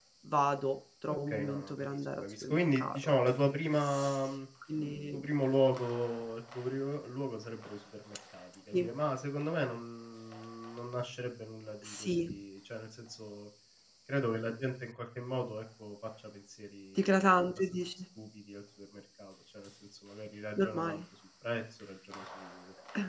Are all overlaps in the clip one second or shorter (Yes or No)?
No